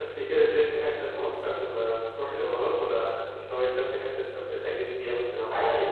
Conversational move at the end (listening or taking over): taking over